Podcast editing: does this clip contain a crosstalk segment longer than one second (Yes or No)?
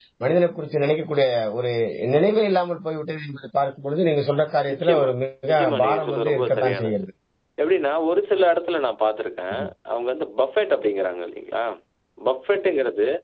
Yes